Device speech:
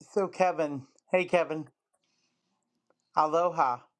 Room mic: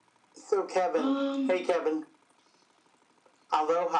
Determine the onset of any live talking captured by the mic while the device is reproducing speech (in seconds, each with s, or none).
0.9 s